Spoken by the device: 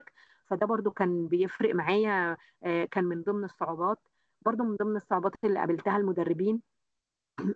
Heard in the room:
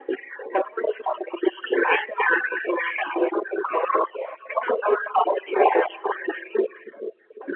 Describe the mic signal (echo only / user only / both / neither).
echo only